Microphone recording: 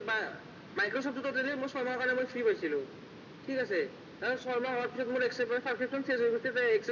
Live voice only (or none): none